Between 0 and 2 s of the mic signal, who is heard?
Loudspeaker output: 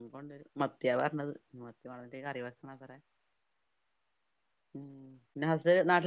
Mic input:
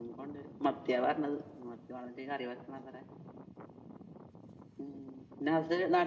echo only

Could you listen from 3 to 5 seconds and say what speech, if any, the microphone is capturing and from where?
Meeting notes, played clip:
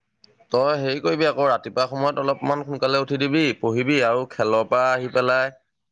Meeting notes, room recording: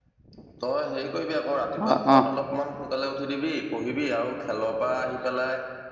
echo only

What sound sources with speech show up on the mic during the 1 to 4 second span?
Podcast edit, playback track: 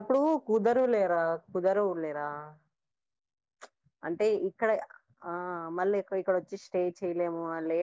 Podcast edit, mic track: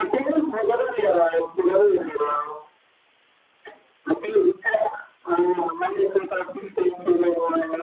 echo only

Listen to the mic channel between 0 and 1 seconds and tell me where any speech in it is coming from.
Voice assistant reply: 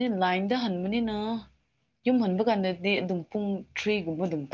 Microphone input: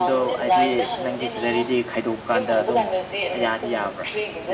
both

